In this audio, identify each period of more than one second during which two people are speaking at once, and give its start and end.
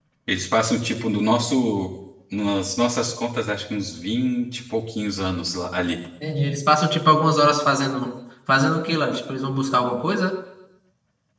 none

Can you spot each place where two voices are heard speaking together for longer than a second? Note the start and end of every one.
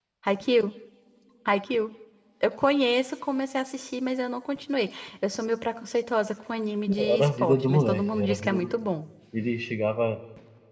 6.9-8.7

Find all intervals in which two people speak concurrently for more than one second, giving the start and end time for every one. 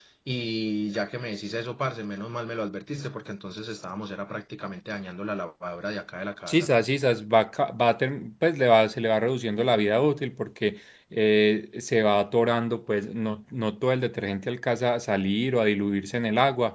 none

